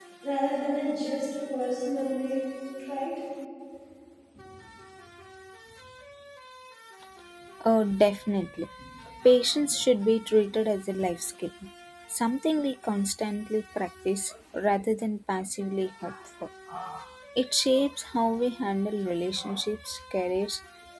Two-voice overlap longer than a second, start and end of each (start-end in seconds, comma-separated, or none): none